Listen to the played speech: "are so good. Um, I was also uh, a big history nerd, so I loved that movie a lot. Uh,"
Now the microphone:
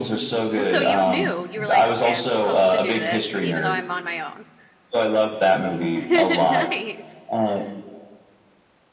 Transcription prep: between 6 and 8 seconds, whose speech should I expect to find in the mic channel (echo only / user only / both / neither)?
both